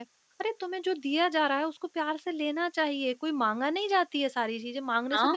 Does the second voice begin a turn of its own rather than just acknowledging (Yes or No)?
Yes